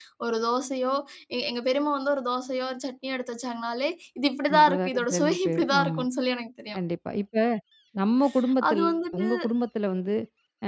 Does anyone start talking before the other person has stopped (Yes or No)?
Yes